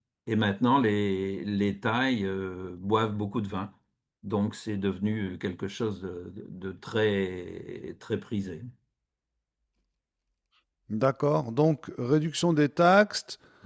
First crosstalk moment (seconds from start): none

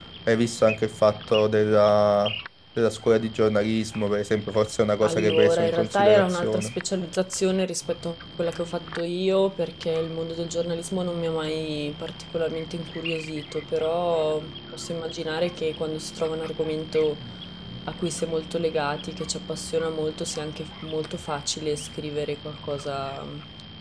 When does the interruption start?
5.0 s

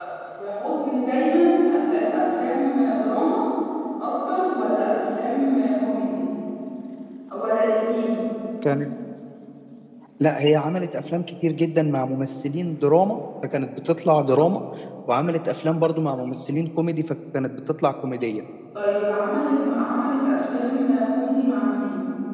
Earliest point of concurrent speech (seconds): none

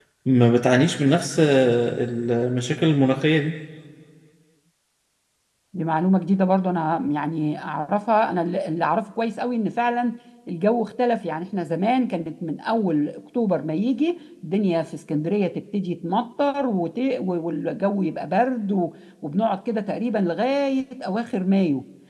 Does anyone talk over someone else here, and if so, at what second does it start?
none

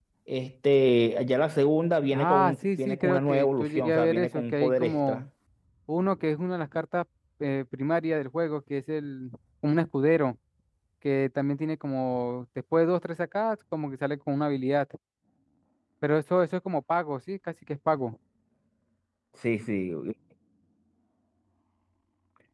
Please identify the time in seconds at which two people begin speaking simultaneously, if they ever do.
2.1 s

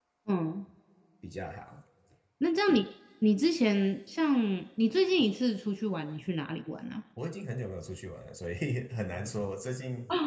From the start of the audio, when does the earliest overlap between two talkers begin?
none

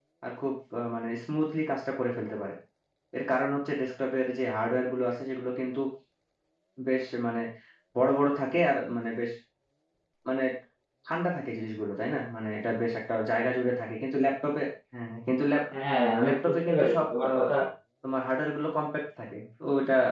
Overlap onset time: 16.2 s

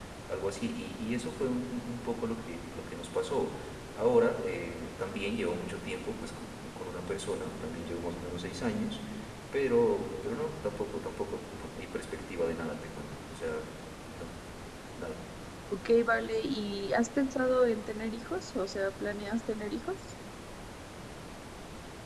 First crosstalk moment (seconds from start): none

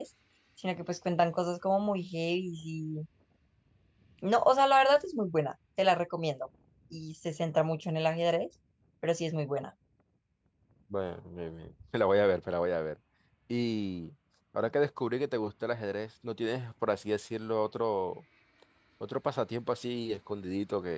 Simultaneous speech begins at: none

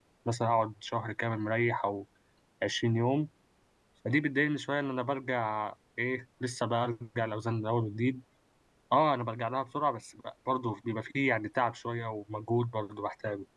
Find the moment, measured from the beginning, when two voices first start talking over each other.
none

